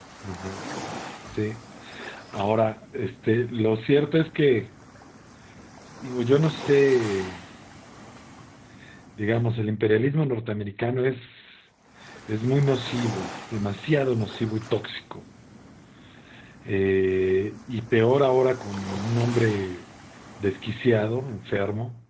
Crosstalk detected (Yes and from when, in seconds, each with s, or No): No